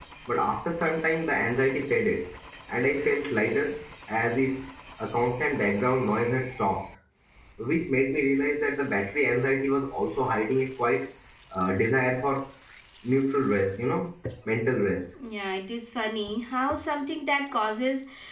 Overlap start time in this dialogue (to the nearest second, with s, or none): none